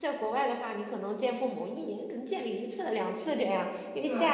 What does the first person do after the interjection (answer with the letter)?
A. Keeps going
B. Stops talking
A